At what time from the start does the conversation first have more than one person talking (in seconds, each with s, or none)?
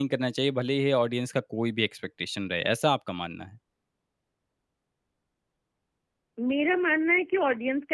none